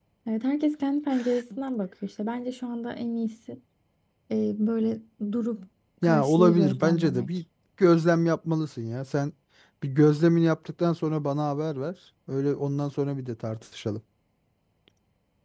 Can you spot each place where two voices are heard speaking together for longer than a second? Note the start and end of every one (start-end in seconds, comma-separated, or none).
6.0-7.3